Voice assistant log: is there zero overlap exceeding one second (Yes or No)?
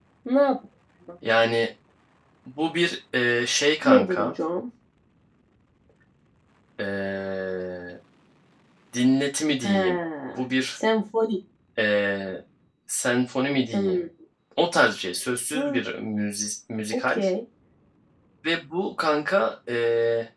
Yes